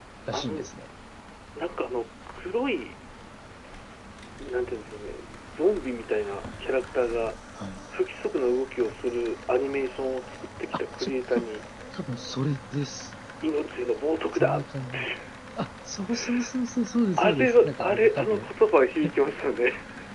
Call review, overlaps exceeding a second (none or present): present